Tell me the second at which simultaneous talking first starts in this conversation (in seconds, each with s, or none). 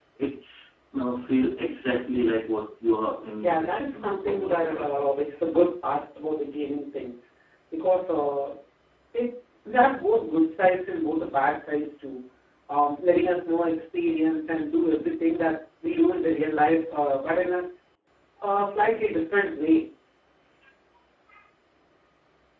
3.3 s